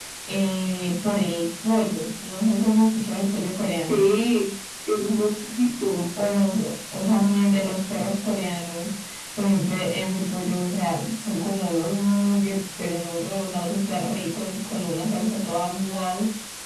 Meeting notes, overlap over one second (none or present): none